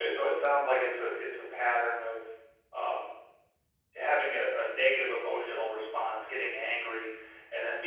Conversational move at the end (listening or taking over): listening